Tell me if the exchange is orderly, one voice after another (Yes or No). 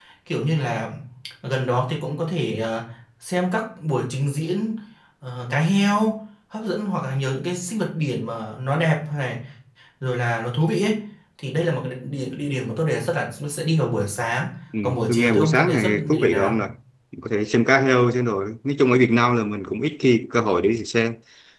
No